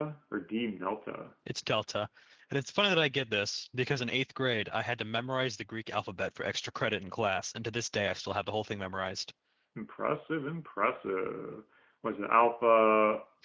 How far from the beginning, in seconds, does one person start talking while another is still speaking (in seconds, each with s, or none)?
none